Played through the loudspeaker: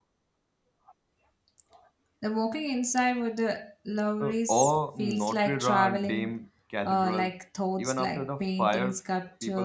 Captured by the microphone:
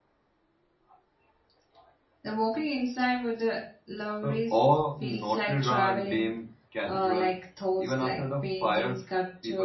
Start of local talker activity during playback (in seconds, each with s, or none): none